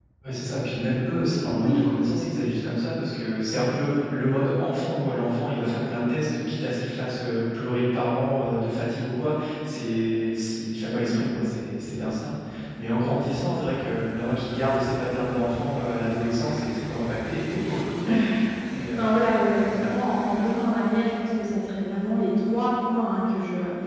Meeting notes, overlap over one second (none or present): none